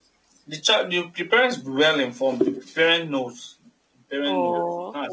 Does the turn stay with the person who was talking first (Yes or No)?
No